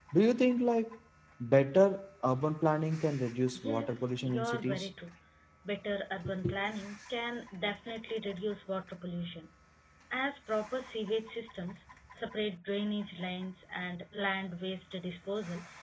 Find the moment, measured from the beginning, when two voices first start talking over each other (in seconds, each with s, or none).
3.5 s